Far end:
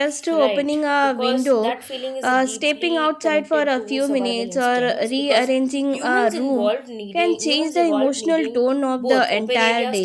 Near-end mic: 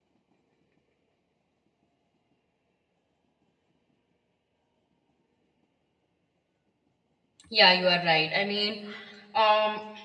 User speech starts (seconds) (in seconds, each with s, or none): 7.5 s